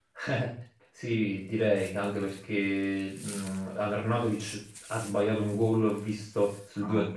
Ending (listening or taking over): listening